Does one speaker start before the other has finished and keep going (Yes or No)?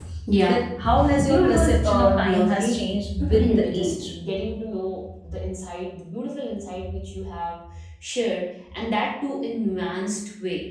Yes